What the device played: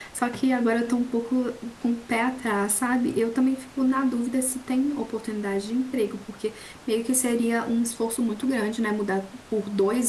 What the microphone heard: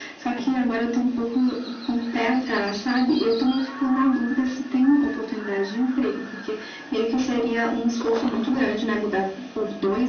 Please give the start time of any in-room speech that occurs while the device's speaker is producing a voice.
none

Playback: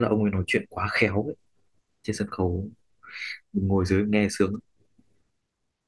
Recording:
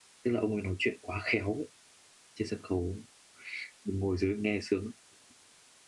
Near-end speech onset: none

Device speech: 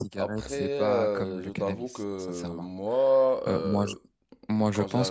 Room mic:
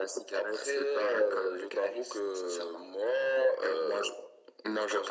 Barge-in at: none

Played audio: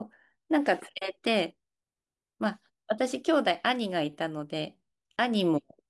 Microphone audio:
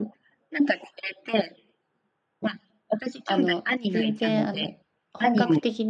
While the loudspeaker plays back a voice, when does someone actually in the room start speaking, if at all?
3 s

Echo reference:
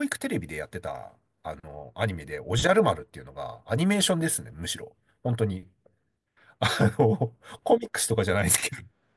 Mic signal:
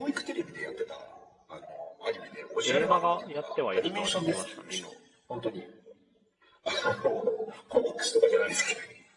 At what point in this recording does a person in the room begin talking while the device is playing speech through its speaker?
3 s

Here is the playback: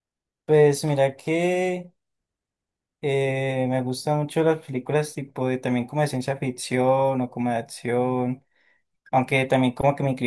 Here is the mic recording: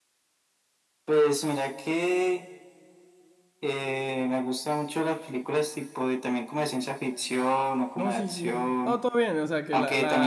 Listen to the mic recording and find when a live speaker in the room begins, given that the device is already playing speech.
8 s

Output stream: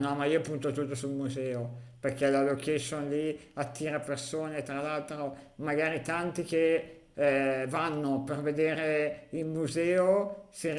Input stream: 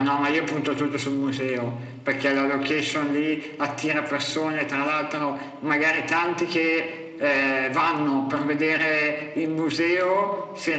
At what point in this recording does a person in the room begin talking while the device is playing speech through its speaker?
none

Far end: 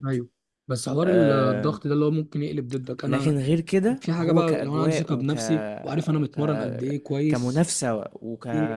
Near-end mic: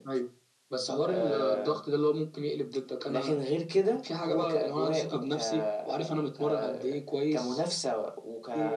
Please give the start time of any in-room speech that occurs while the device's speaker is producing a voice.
none

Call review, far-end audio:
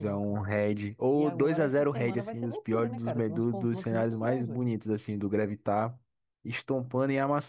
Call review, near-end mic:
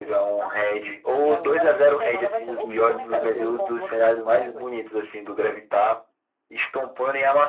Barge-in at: 2 s

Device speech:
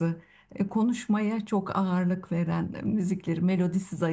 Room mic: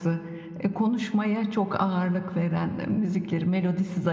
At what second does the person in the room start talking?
none

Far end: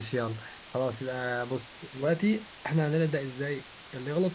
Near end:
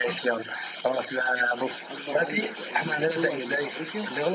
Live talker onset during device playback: 2 s

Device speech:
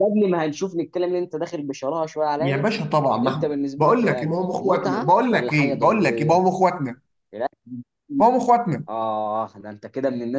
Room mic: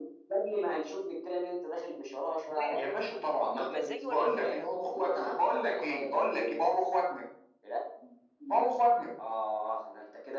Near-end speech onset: 2 s

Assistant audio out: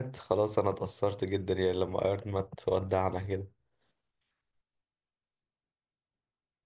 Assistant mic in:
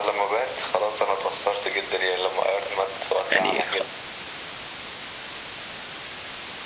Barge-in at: 3 s

